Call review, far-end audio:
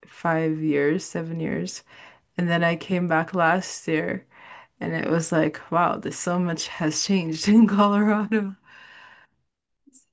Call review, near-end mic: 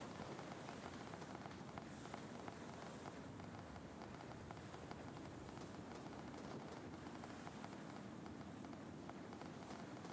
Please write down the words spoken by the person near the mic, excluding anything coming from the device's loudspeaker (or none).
none